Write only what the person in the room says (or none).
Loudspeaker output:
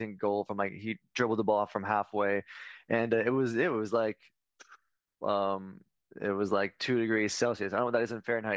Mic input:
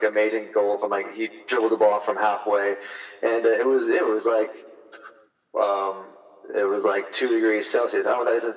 none